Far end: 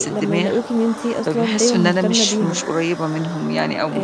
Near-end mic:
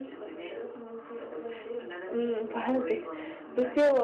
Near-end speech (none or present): present